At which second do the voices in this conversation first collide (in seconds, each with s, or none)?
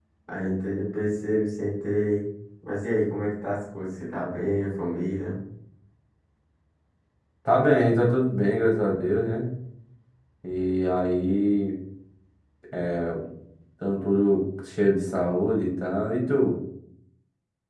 none